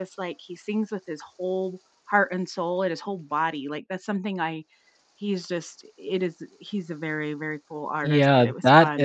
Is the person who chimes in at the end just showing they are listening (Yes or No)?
No